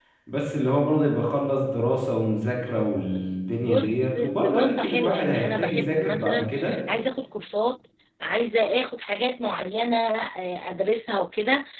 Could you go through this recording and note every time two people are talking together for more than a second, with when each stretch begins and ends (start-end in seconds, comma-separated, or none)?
3.7-6.5